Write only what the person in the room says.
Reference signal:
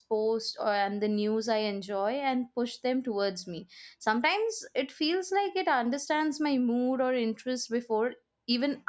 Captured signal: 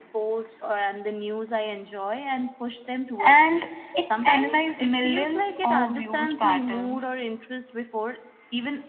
and it analyze millions of views patterns

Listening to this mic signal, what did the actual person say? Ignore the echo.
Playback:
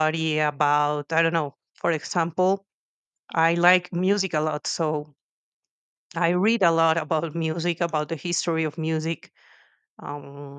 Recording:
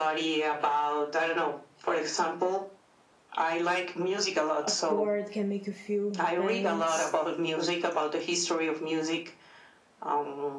a chord can make you feel things.

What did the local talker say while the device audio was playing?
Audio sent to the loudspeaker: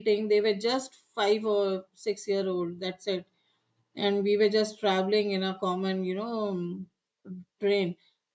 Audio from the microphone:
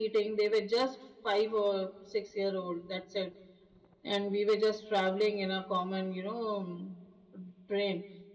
none

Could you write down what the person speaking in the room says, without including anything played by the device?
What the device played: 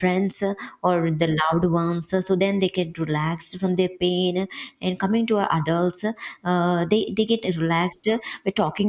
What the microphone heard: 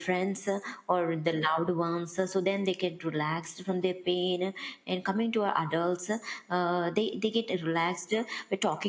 none

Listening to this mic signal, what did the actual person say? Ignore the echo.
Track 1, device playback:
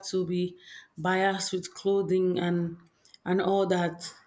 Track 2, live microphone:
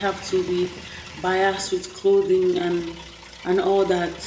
none

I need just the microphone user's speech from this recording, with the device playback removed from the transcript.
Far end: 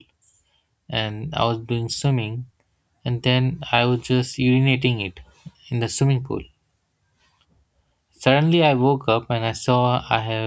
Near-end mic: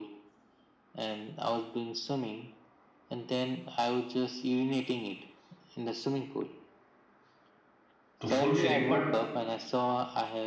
to fulfill it but

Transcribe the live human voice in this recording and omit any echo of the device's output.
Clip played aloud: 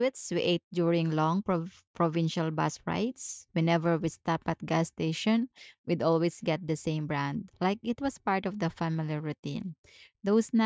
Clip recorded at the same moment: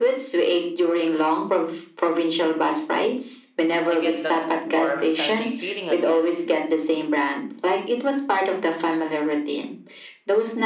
I get that warm Sunday feeling again.

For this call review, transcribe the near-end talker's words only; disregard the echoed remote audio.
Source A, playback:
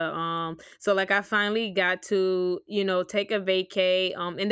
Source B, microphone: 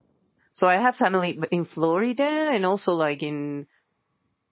So I have family b- in Florida and also like in

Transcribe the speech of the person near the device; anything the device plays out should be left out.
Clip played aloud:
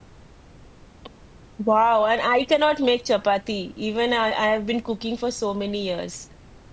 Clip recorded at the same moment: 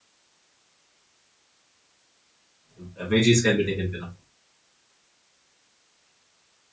Uh, veggies can be taken care of.

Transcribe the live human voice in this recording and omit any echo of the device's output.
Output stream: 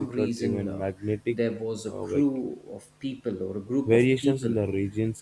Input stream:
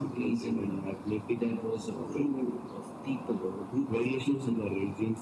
none

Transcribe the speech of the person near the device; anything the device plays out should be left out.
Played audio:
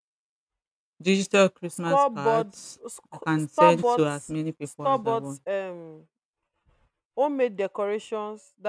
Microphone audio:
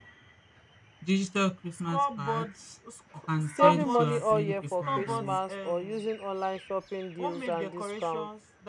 Saving money all year for Christmas or using online shopping deals and discounts.

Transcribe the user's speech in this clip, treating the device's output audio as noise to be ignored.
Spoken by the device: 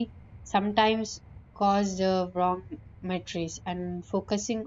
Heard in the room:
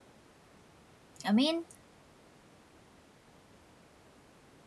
I mean,

